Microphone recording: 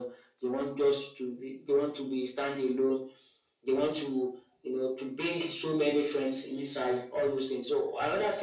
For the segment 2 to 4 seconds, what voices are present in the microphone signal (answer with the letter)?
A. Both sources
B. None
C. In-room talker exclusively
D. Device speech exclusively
D